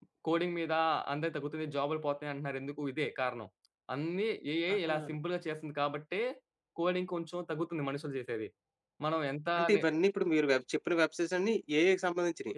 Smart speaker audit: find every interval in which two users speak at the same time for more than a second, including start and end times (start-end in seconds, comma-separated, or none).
none